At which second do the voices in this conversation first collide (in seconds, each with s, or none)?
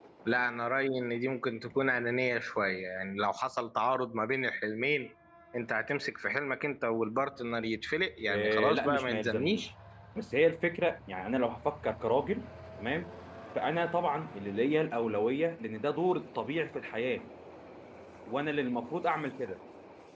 8.3 s